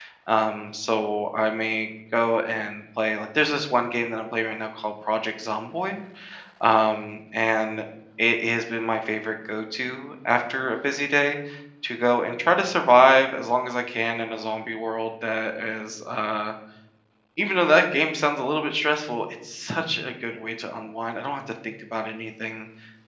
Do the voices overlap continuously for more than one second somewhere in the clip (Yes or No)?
No